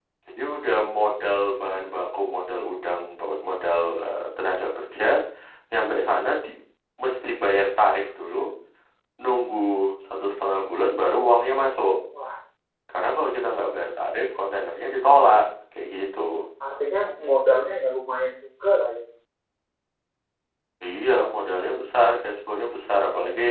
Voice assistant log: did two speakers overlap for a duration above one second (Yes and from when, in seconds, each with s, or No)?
No